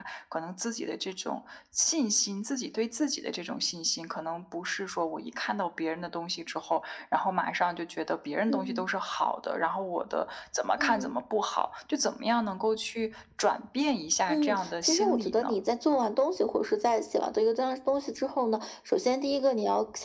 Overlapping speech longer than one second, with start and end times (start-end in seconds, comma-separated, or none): 14.3-15.6